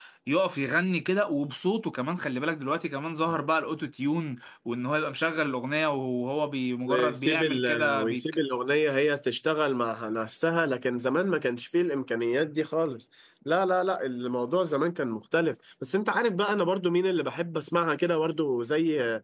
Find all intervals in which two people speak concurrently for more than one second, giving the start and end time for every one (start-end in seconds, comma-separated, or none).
6.8-8.2